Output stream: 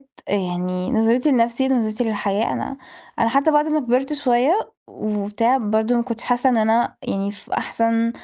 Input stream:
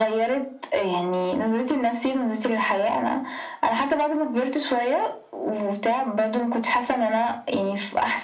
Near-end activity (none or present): none